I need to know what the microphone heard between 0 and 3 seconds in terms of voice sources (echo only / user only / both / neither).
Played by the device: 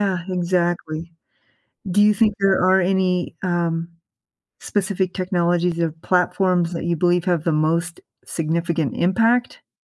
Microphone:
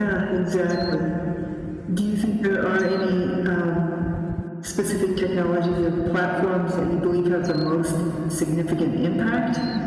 echo only